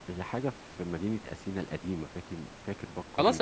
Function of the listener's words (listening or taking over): taking over